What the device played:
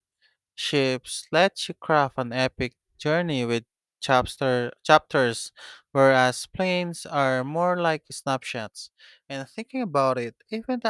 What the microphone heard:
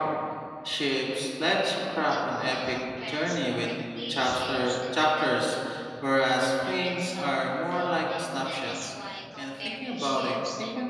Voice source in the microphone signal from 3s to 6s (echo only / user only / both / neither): both